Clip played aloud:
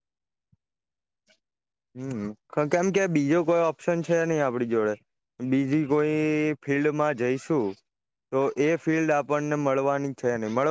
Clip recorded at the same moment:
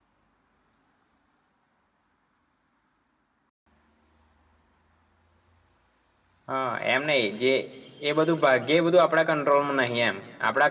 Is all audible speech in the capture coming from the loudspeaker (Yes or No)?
No